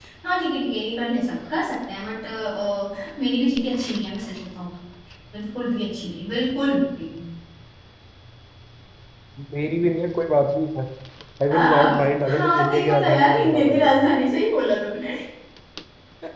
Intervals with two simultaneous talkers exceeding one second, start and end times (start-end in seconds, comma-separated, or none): 11.5-14.0